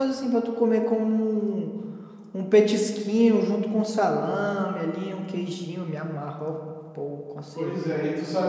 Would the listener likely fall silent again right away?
No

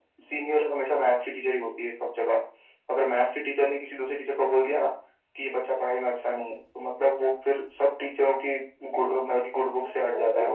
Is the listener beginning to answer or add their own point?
Yes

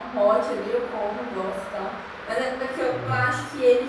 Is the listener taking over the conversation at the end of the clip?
No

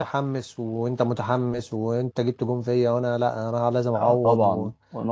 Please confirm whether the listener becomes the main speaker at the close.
Yes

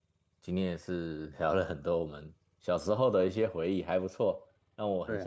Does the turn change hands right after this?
No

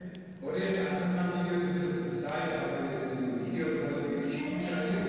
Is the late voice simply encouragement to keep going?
Yes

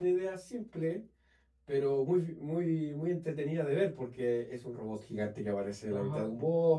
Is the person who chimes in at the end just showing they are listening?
No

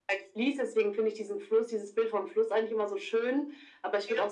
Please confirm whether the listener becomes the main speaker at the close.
No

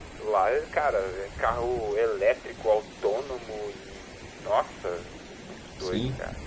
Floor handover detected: Yes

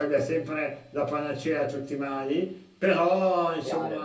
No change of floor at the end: Yes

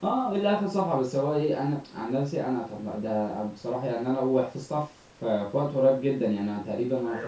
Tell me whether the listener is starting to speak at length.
Yes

